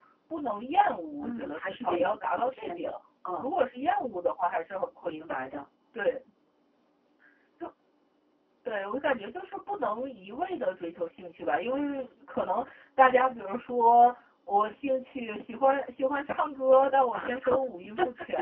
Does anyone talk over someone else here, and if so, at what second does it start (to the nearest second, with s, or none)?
1 s